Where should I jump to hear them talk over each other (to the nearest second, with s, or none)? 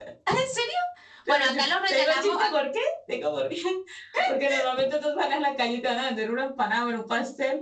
1 s